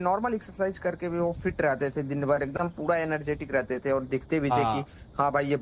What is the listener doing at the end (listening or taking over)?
listening